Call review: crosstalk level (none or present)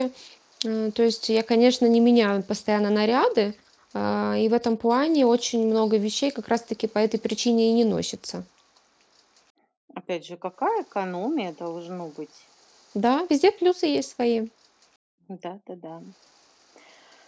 none